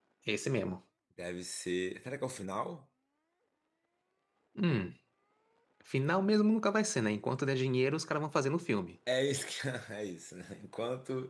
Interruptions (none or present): none